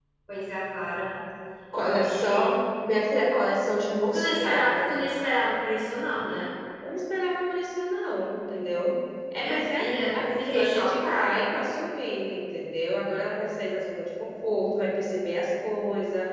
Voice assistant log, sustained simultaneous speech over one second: present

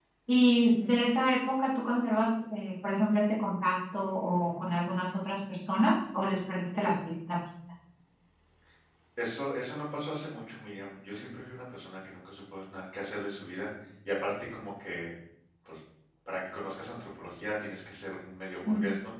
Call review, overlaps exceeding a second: none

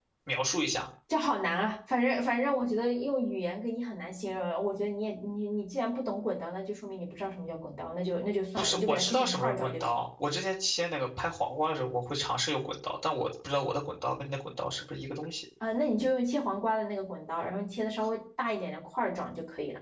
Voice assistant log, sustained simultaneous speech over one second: present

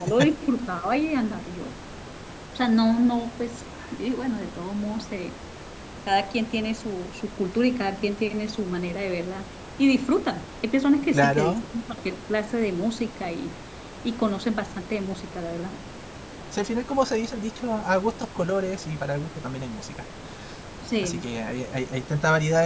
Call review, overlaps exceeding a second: none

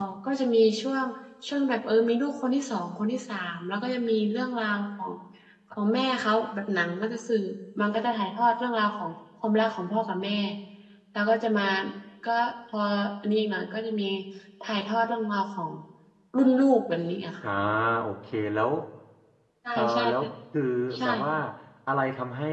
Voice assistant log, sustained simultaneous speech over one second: none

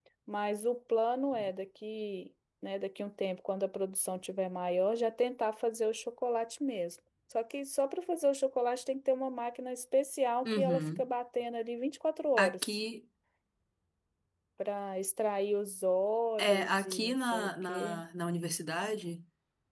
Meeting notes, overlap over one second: present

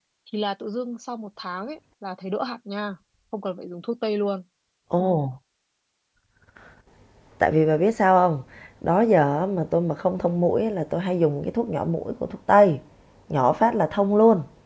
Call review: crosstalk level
none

